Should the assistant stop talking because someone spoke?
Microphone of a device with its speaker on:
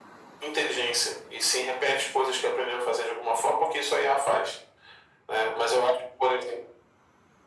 No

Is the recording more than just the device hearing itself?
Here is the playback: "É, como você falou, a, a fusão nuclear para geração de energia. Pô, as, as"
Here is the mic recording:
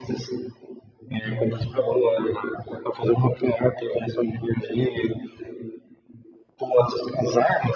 Yes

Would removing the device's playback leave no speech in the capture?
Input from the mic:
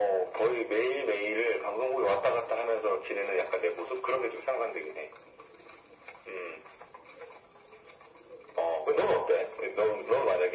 Yes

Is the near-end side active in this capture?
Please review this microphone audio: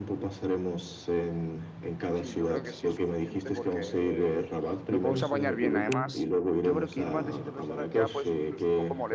Yes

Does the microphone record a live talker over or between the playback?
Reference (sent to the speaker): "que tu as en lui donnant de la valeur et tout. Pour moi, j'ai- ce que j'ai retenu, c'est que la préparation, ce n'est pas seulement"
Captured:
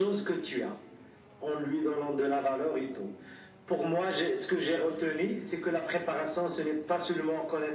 No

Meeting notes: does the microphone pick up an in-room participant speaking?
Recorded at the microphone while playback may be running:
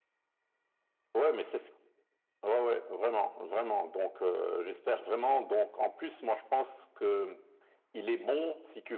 No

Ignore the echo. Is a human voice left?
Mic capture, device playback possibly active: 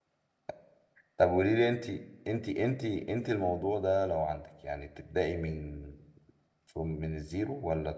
Yes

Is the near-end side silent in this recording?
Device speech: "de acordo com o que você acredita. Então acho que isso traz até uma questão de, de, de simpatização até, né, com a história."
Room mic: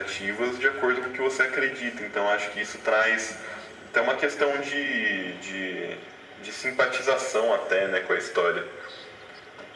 Yes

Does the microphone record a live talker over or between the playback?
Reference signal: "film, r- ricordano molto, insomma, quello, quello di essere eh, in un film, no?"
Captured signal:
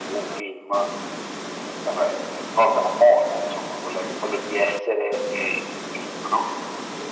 No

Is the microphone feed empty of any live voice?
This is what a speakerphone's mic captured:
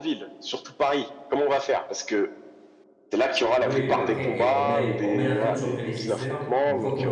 No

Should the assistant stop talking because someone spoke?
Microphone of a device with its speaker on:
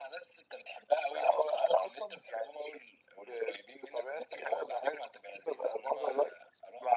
No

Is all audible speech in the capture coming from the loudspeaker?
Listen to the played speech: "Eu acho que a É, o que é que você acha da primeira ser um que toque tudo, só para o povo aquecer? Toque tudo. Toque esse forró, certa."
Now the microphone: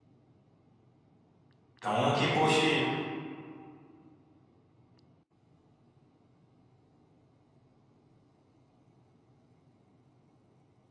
No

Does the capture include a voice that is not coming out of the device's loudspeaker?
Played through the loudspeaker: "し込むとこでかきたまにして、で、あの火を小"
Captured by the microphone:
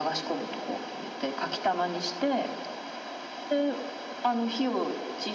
No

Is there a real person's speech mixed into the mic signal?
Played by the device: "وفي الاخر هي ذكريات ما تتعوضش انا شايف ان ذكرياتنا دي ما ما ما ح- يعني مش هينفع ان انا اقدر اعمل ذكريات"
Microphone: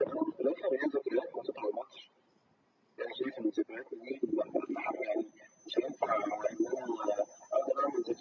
No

